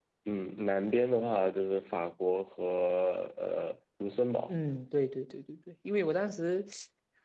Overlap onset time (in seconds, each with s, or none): none